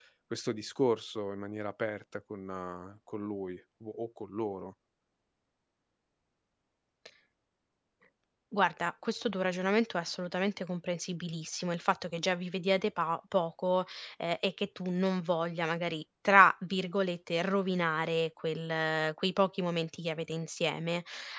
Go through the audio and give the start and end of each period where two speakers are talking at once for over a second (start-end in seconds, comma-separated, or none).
none